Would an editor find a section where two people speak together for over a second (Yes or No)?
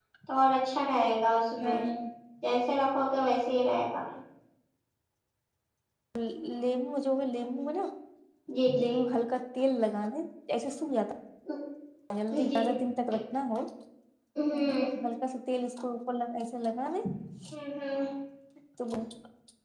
No